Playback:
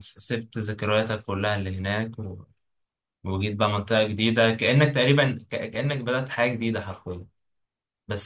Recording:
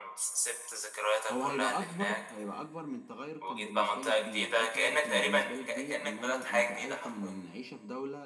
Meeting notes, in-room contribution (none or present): present